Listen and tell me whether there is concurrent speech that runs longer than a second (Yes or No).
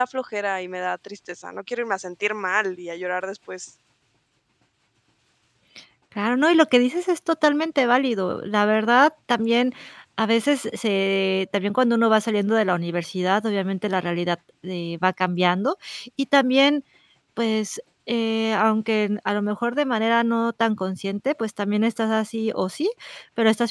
No